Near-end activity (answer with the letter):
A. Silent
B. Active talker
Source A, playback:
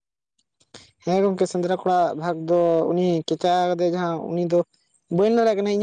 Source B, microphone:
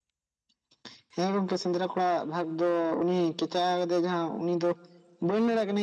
A